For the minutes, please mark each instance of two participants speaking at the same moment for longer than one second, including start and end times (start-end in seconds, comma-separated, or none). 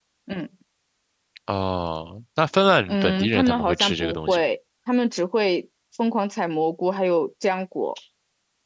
2.9-4.5